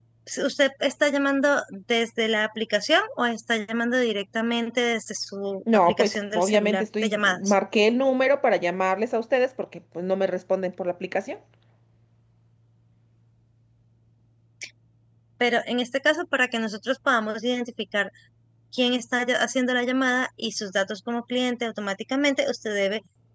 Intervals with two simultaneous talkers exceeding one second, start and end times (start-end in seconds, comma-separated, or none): 5.7-7.4